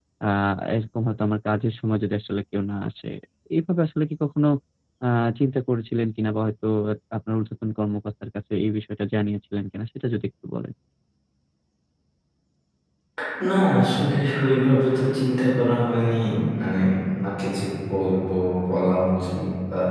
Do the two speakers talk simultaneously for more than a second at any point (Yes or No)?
No